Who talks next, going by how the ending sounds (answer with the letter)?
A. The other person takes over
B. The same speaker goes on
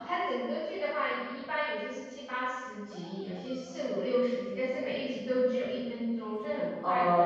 A